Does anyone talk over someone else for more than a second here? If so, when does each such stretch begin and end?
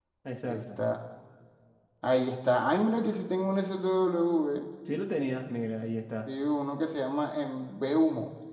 none

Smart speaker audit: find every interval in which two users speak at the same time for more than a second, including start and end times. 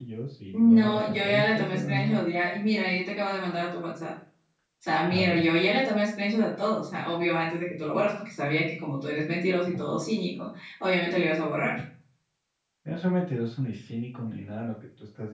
0.5-2.2

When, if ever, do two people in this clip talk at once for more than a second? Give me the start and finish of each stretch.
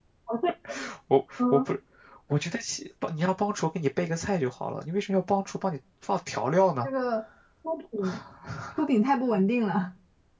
none

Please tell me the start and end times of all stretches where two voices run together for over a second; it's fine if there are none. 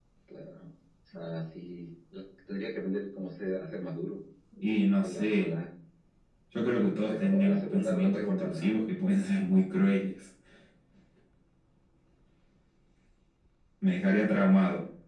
7.1-8.7

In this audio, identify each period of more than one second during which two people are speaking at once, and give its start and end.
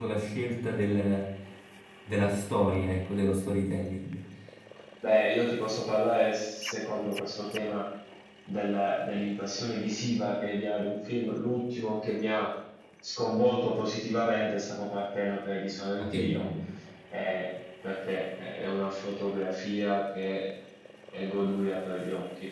none

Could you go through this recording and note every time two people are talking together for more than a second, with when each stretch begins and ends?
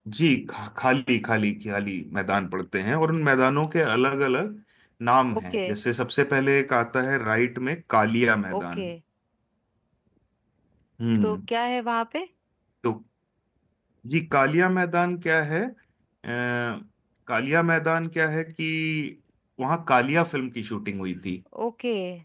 none

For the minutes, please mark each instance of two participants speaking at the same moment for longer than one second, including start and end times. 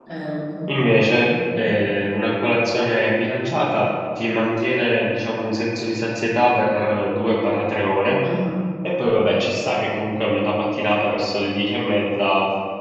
none

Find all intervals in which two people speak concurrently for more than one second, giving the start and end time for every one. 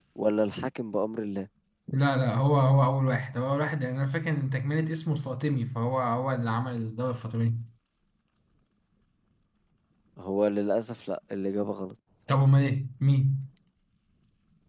none

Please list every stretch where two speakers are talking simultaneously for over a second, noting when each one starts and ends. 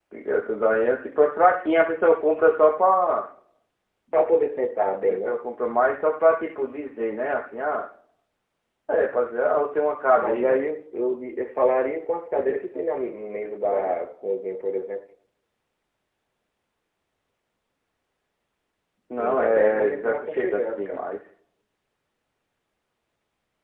19.2-21.0

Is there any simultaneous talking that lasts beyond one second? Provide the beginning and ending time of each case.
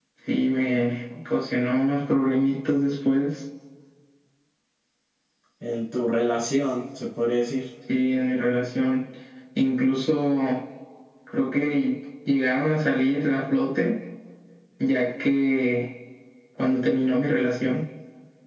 none

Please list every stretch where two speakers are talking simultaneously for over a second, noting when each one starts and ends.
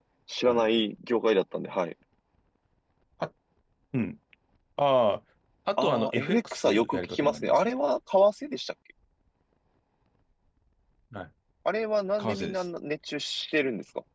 5.8-7.7

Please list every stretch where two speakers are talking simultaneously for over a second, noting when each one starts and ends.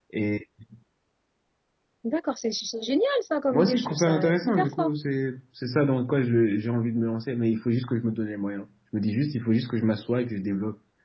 3.5-4.9

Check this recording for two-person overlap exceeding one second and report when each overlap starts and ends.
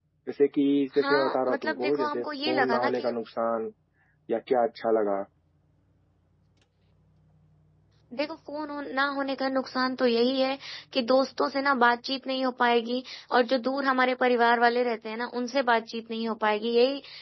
1.0-3.1

